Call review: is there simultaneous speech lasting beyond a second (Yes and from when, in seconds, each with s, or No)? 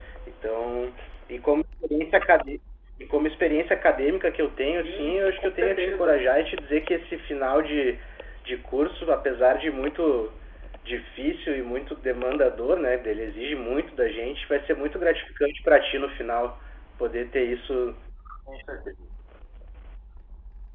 Yes, from 4.8 s